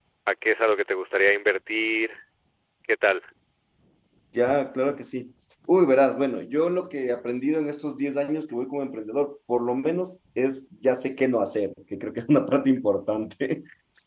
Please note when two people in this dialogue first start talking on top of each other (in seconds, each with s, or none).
none